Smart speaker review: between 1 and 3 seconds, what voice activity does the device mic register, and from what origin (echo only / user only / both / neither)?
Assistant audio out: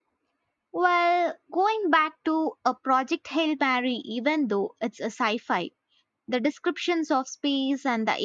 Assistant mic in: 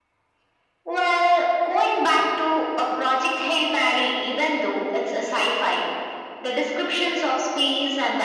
echo only